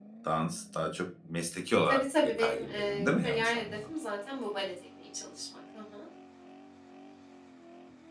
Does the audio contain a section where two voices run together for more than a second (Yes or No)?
Yes